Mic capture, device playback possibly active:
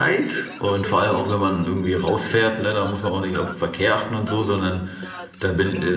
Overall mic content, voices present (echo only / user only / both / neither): both